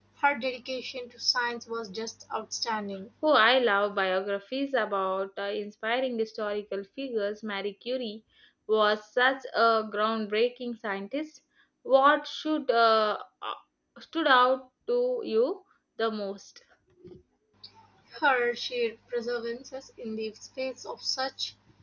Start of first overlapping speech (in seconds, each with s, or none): none